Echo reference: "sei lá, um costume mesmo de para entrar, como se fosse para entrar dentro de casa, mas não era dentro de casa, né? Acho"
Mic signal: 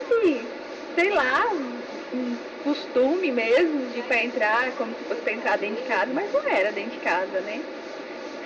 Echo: present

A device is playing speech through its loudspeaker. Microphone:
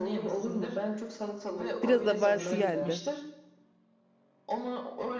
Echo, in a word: present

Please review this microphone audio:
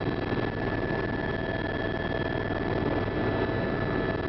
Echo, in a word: none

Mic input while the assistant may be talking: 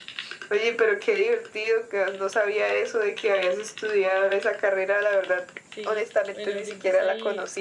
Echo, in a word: present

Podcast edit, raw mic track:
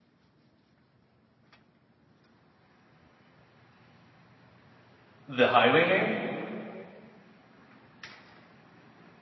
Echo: none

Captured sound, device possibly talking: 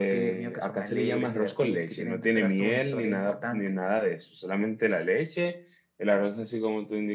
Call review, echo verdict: present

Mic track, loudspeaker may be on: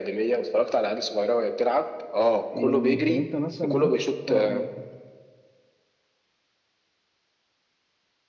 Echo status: present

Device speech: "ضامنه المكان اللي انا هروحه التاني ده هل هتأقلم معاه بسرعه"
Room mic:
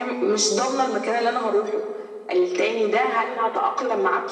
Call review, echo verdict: present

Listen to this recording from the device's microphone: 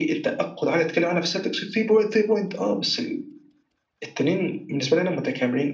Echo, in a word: present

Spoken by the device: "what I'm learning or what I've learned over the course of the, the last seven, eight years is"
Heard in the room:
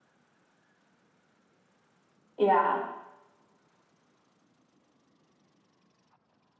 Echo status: none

